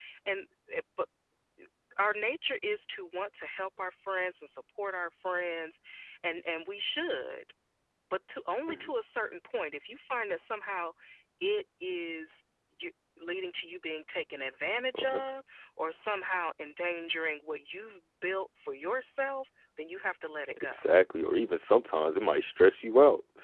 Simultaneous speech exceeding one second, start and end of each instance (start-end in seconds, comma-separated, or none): none